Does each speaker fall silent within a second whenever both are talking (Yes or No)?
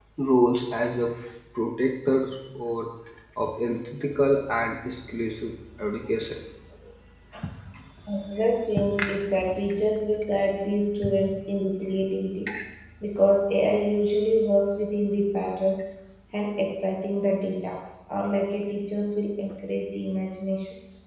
Yes